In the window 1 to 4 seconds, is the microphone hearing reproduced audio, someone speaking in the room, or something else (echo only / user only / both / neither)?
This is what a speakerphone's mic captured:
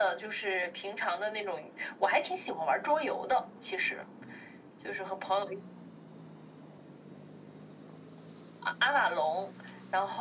echo only